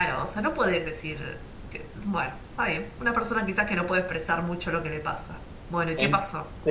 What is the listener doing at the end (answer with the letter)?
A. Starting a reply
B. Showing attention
A